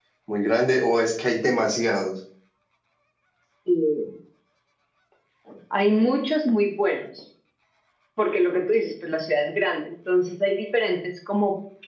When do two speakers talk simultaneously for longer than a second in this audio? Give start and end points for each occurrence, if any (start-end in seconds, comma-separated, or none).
none